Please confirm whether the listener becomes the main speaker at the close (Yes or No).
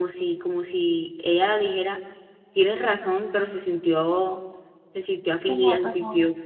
No